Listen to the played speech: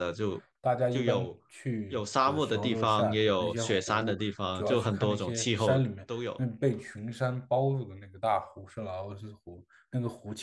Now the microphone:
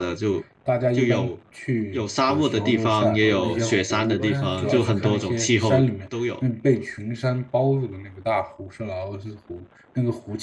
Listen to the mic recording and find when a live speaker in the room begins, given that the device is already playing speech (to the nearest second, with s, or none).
3 s